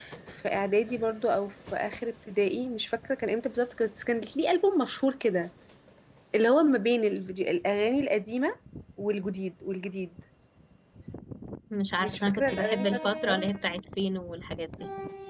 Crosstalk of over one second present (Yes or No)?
Yes